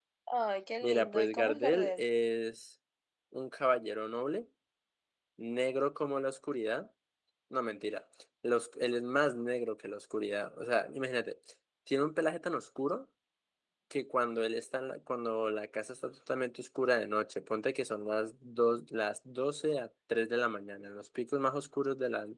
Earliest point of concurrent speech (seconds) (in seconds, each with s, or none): 0.8 s